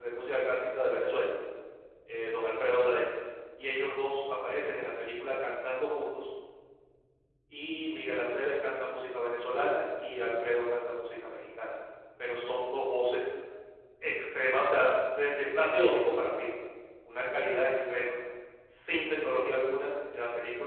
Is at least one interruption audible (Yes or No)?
No